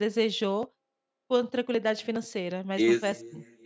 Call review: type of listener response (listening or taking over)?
taking over